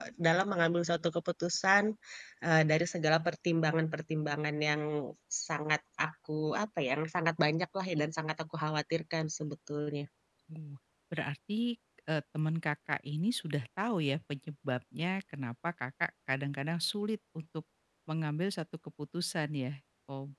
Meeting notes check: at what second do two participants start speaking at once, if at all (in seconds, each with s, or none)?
none